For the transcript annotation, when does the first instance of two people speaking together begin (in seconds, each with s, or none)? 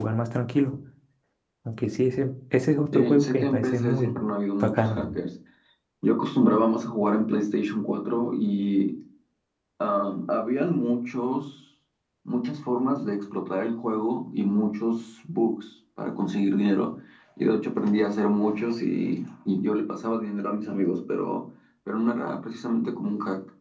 2.9 s